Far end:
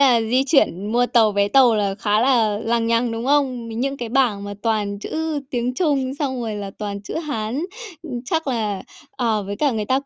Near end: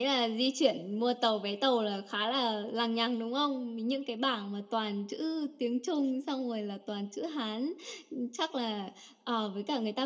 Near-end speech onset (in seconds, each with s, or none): none